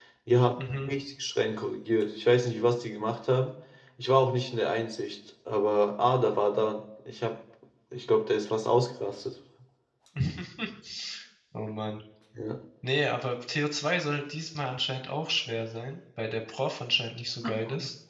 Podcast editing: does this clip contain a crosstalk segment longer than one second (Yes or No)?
No